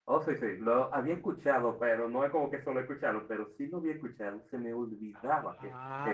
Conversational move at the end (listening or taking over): taking over